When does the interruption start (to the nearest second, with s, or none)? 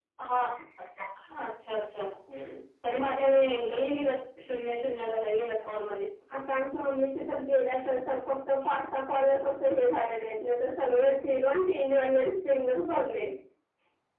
none